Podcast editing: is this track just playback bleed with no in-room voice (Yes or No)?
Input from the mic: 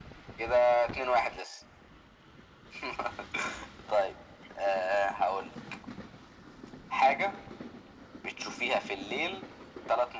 Yes